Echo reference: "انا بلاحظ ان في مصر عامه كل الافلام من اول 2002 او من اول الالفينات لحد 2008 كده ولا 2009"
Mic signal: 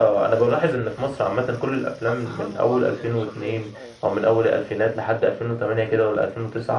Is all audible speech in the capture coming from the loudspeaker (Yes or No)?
No